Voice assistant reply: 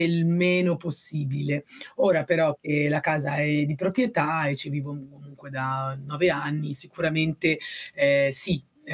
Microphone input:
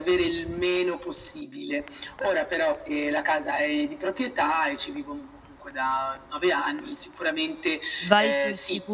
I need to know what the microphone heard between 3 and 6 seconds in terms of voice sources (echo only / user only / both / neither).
echo only